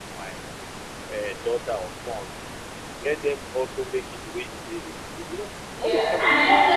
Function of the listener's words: taking over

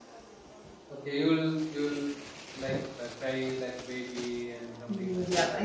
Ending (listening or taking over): taking over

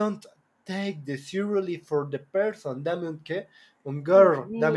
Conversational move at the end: taking over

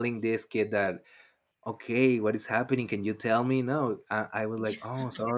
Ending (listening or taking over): listening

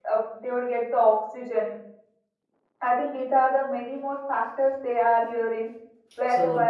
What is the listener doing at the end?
listening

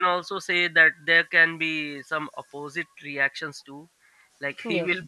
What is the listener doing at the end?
listening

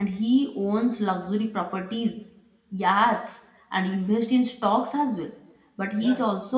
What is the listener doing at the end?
listening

